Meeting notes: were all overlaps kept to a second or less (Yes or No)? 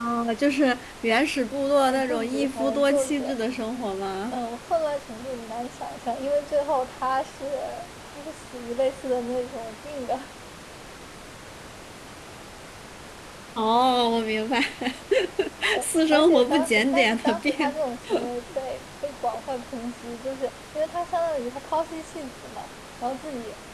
No